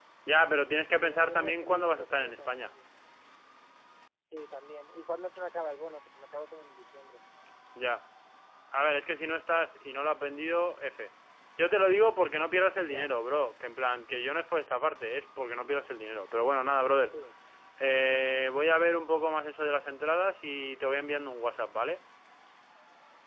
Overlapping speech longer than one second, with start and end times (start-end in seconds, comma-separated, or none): 1.0-2.7